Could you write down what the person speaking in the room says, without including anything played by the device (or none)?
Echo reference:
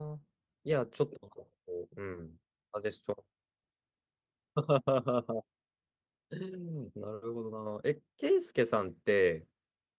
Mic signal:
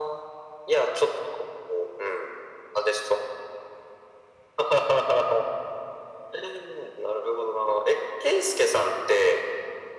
none